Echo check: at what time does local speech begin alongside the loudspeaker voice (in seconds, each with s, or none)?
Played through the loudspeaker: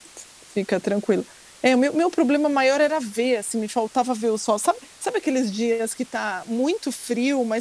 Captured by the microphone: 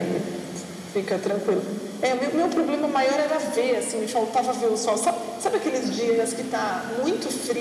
none